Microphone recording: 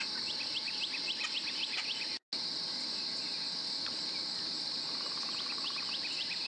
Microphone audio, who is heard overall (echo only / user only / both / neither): neither